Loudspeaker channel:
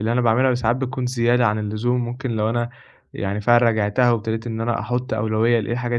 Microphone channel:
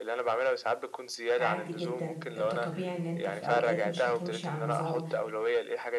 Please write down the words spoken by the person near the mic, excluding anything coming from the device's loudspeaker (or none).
عادي جدًا، أنت طبيعي إن أنت في أوقات مش هتمشي على النظام،